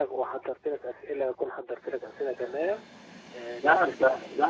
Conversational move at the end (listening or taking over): taking over